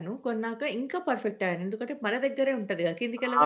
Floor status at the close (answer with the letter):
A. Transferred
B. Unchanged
A